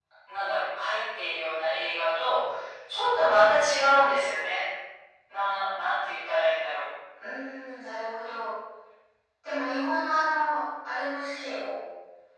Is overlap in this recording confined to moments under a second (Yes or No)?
Yes